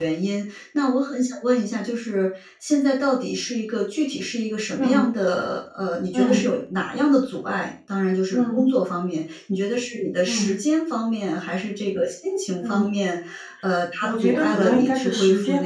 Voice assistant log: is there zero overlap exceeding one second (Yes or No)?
No